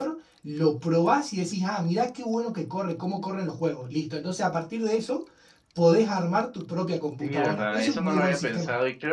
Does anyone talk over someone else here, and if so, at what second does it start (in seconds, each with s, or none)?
7.2 s